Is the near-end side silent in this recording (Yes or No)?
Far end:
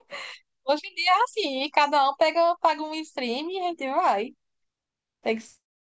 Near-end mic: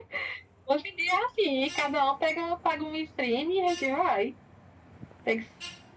Yes